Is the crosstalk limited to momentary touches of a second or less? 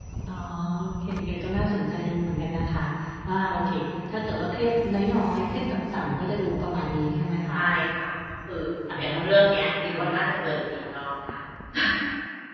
Yes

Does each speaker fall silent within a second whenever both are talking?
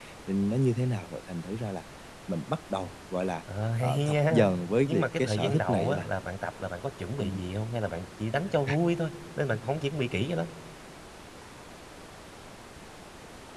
No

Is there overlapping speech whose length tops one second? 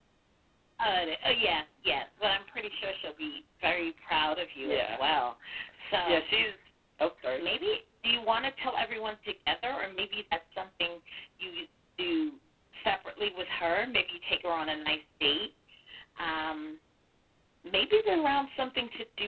No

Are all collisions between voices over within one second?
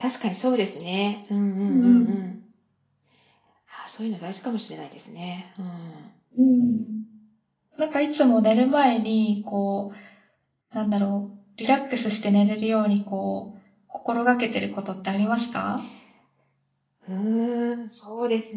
Yes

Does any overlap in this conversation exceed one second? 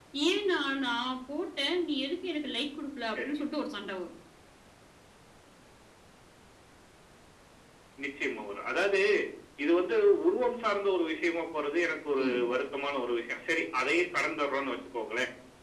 No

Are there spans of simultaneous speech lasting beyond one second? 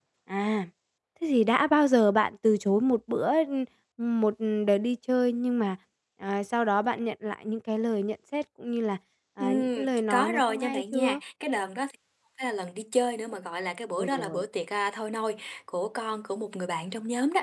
Yes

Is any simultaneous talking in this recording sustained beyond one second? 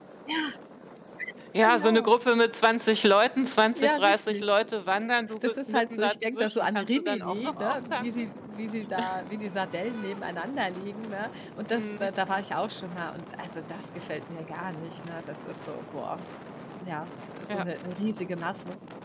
Yes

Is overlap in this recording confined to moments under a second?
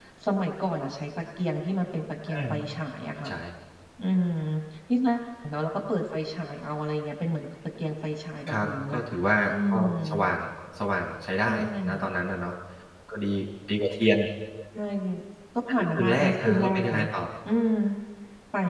No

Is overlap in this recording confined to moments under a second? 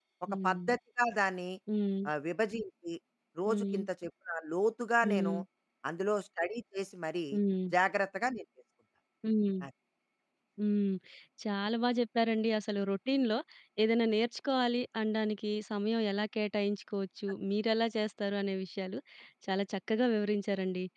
Yes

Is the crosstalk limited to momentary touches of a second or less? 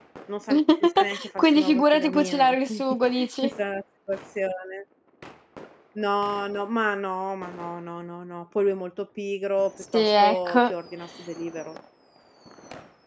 No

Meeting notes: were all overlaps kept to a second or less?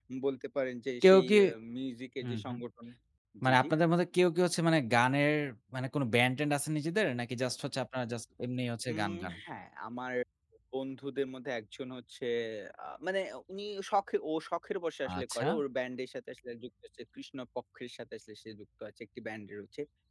Yes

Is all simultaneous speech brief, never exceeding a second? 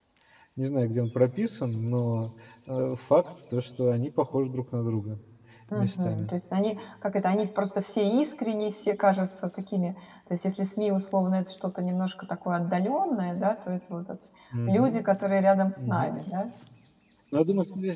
Yes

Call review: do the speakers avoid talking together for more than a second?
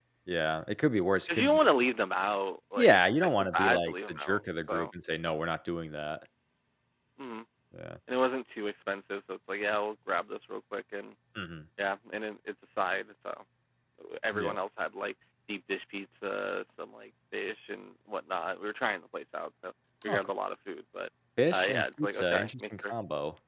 No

